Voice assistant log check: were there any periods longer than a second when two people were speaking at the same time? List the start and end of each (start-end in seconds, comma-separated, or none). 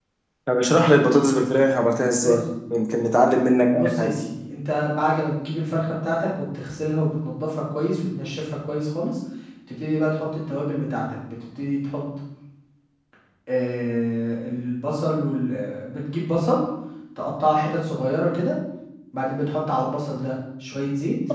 none